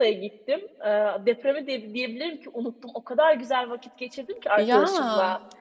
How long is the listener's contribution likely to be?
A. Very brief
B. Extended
A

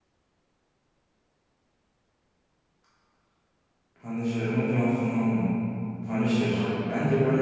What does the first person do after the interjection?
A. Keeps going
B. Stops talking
A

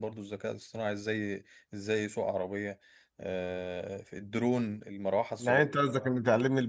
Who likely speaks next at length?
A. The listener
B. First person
A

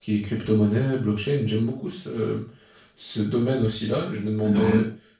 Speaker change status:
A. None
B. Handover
A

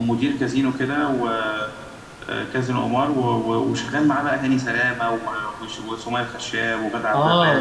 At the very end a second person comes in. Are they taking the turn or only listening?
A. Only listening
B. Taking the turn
B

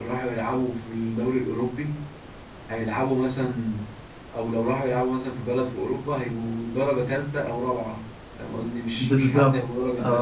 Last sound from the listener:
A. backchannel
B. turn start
B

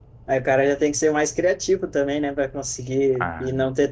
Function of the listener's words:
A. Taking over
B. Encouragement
B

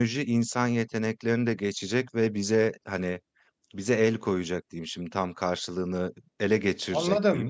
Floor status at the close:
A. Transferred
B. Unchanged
A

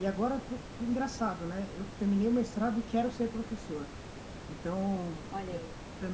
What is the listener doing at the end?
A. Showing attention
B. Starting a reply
A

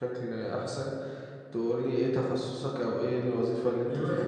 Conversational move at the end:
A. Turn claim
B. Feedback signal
A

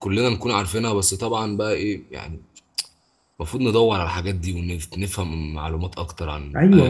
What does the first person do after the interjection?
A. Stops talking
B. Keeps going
A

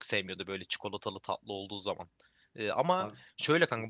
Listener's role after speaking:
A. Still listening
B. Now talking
A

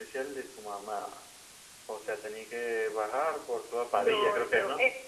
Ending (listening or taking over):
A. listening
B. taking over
B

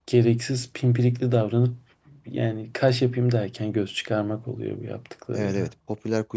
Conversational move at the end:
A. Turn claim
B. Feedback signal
A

